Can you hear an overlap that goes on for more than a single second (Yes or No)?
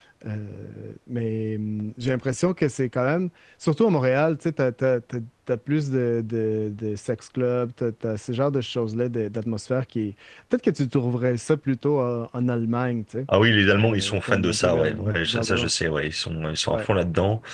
Yes